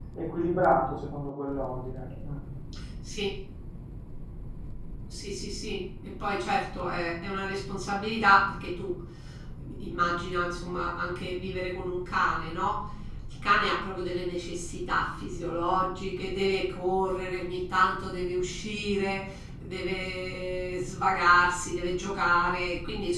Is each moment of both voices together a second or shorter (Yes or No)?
Yes